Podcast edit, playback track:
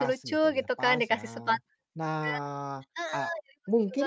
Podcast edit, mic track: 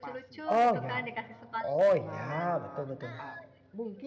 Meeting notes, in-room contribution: present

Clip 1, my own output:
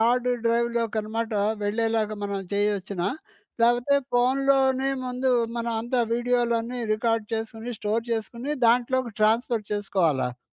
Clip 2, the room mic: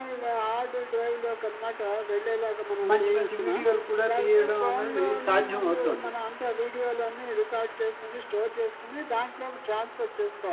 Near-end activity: present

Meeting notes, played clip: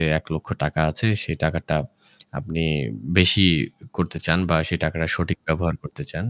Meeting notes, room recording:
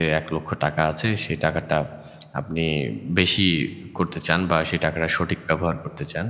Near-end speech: none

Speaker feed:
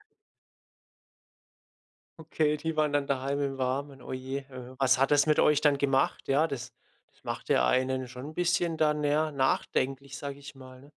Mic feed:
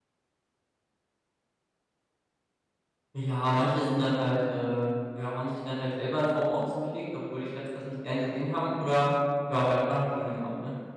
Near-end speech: present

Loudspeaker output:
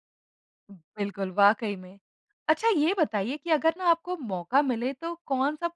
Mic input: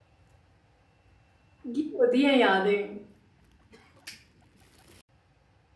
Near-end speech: present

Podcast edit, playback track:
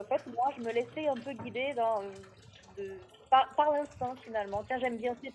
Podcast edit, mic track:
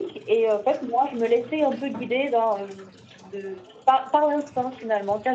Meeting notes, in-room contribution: none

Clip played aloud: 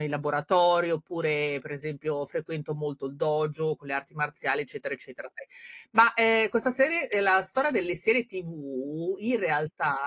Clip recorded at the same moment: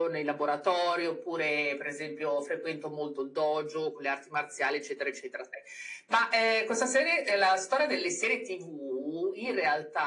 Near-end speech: none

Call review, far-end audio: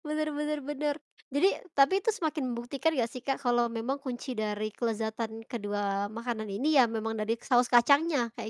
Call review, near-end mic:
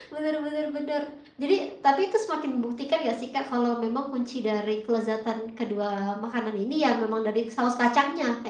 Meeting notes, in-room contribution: none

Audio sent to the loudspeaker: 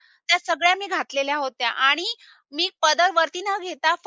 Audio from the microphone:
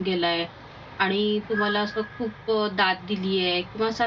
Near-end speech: present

